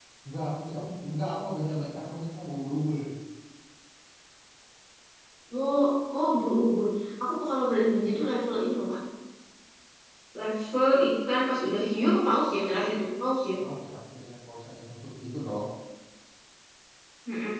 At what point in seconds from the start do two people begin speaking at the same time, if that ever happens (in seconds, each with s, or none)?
none